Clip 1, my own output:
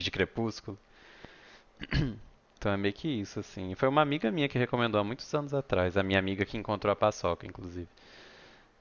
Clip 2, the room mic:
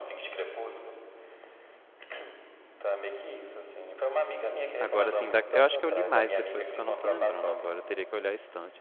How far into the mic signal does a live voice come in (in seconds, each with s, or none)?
4.8 s